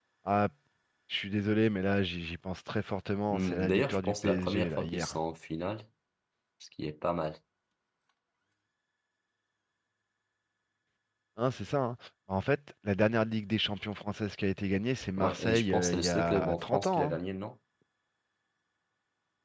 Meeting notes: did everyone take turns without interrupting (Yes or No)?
No